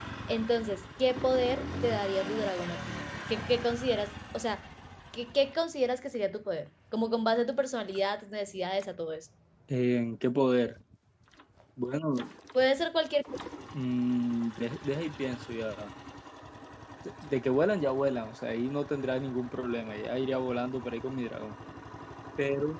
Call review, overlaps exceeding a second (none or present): none